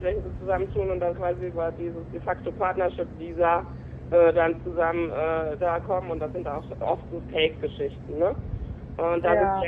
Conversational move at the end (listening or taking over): listening